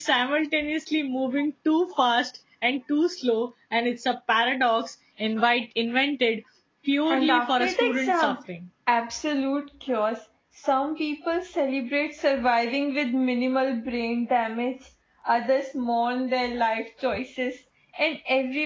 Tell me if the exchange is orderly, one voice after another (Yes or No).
No